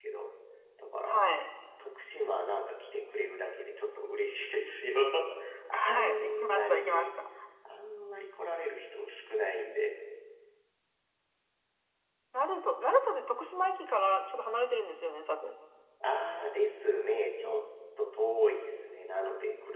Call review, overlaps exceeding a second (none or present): present